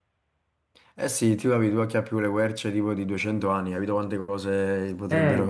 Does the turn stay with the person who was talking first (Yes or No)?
No